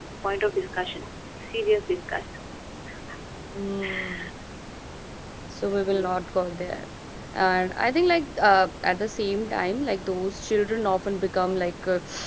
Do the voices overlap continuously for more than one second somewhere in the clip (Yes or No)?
No